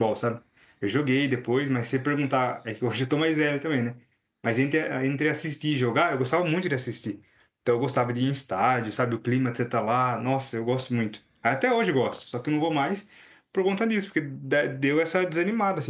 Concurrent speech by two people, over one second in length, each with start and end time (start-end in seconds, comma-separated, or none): none